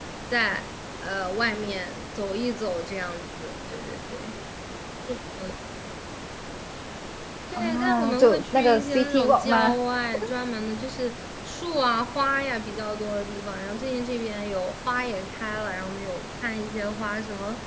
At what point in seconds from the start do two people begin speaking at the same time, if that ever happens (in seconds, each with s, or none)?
7.6 s